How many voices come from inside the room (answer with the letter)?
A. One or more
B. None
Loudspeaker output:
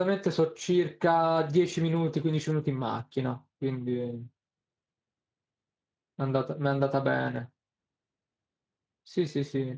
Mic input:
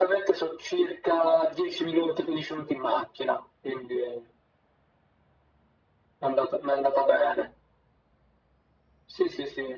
B